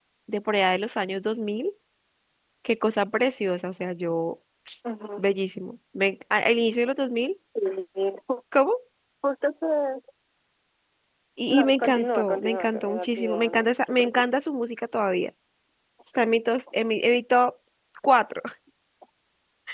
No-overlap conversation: No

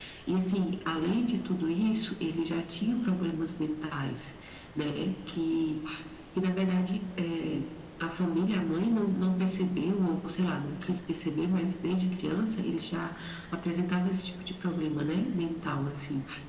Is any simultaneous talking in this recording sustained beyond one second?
No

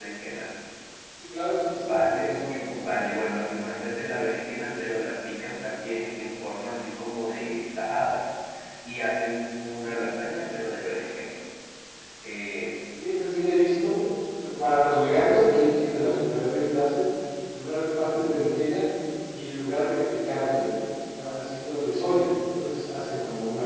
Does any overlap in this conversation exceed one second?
Yes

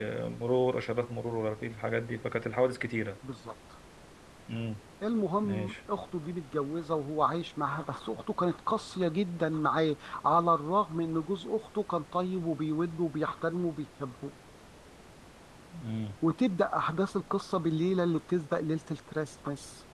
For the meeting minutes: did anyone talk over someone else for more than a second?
No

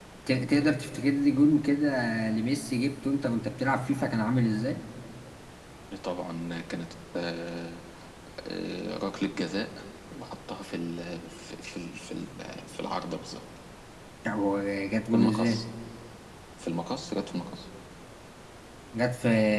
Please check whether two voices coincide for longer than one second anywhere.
No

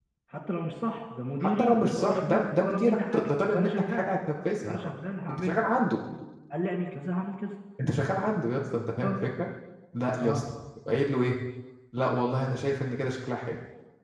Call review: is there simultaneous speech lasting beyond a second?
Yes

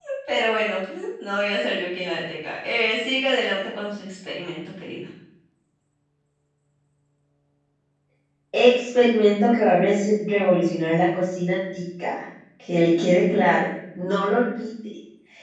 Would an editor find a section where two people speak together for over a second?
No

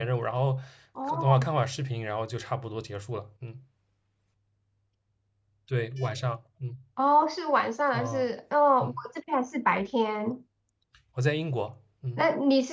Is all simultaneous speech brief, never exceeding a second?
Yes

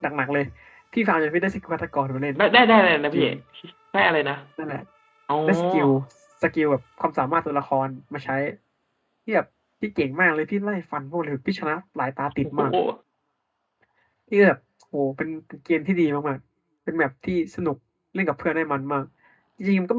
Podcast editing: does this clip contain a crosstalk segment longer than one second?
No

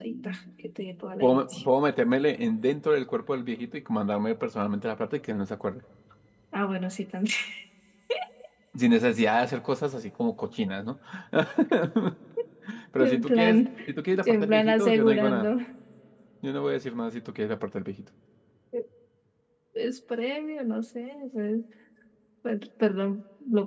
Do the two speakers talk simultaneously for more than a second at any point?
Yes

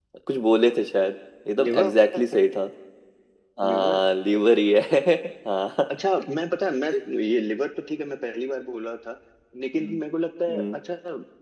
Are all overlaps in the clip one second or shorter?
Yes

